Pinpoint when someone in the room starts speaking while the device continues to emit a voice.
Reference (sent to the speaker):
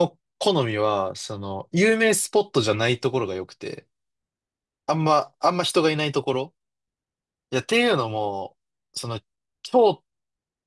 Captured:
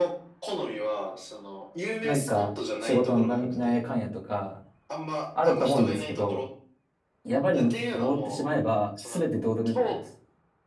2 s

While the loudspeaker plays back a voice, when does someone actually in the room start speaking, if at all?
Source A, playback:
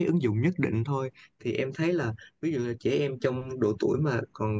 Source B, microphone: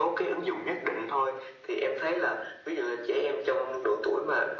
none

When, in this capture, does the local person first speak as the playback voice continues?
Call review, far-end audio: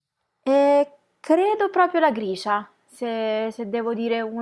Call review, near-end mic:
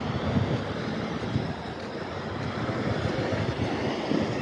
none

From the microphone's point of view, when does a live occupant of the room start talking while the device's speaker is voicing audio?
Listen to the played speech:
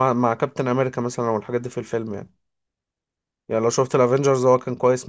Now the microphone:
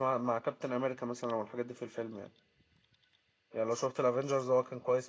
none

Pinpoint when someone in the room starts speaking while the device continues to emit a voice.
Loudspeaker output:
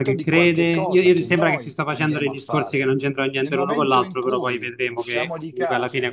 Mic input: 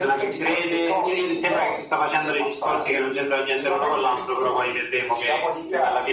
none

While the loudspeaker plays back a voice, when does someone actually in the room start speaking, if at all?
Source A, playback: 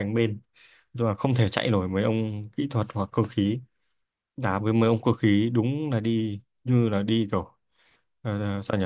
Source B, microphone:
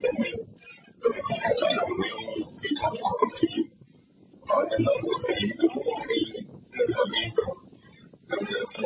none

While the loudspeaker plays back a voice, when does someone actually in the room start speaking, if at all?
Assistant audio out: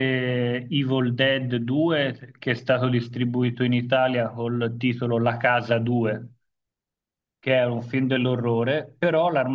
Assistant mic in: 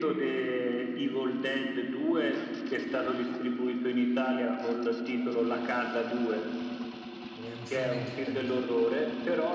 7 s

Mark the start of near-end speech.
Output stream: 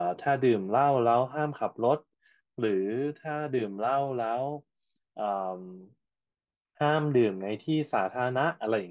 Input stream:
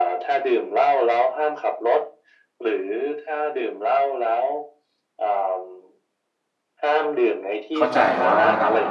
8 s

